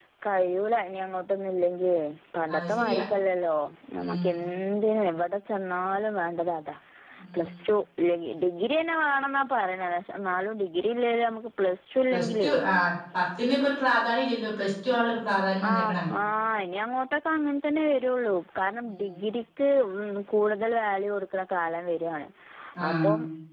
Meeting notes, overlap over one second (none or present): none